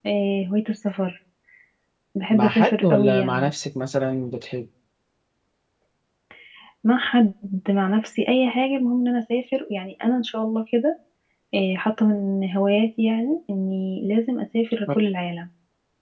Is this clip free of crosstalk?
No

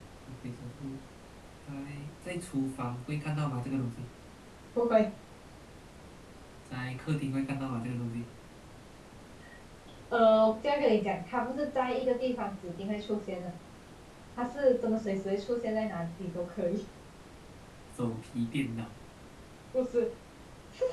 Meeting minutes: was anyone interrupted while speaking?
No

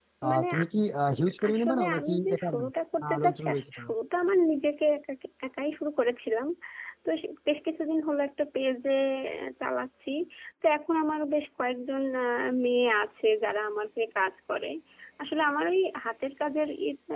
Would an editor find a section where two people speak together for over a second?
Yes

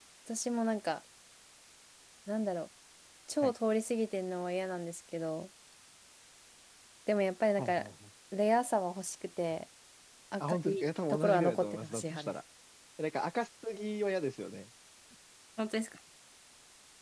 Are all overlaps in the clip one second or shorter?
No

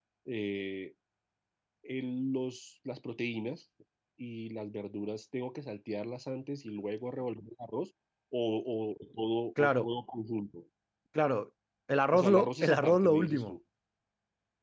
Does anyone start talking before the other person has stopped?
Yes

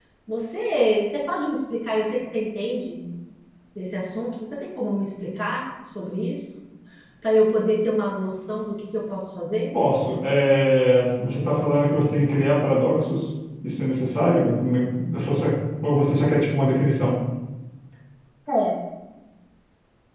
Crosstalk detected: No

